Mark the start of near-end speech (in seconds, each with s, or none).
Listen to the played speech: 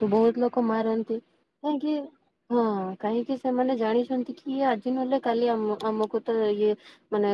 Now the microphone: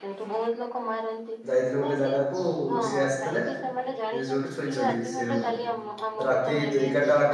1.5 s